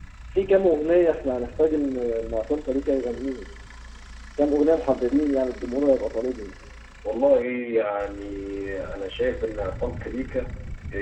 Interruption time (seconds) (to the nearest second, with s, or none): none